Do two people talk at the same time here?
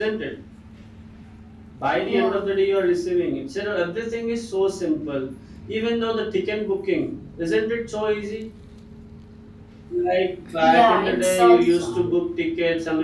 Yes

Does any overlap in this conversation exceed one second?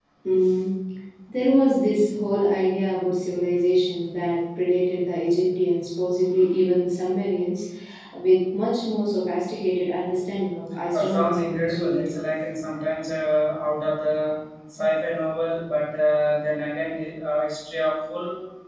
Yes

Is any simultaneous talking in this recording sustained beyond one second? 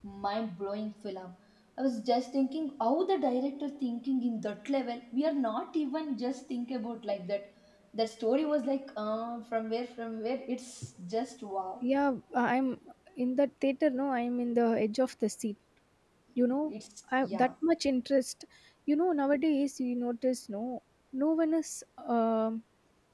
No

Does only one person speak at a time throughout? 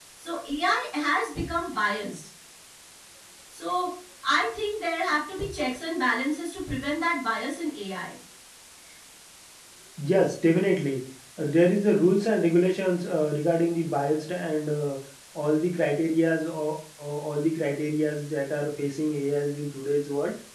Yes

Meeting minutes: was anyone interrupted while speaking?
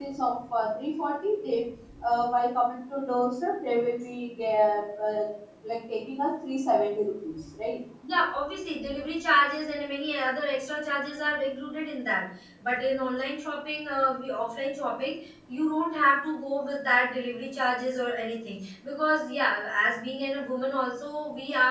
No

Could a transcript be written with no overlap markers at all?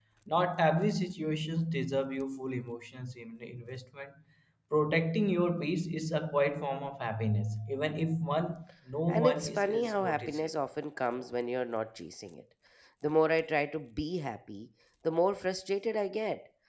No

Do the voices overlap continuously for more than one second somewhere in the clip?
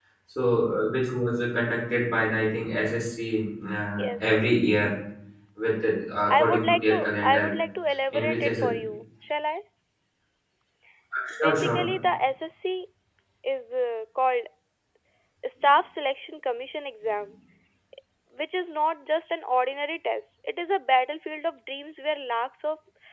Yes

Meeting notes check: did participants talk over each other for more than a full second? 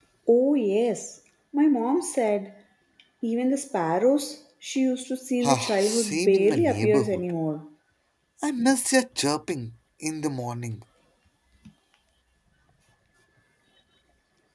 Yes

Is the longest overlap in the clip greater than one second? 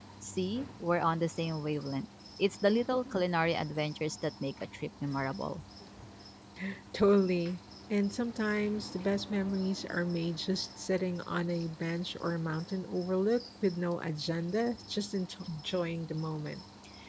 No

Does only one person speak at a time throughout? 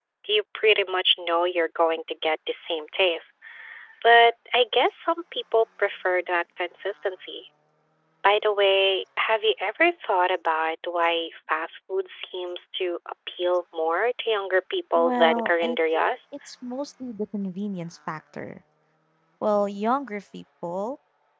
No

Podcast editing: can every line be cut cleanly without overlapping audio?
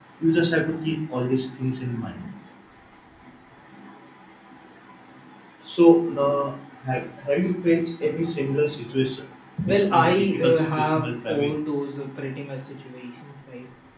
No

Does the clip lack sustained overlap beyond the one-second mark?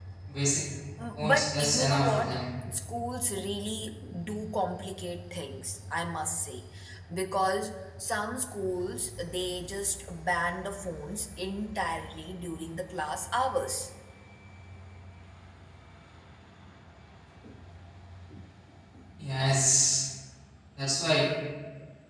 No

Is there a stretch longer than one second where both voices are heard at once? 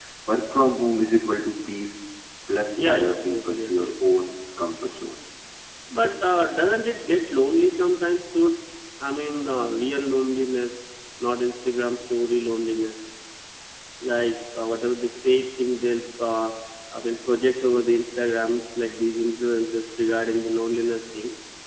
Yes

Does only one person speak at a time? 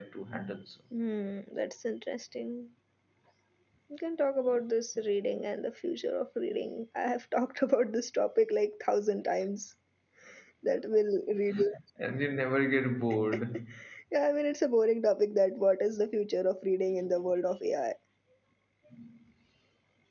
Yes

